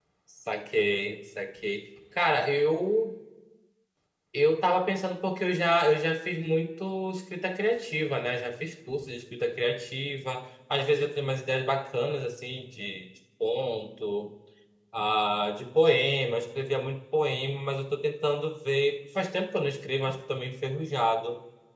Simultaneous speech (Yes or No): No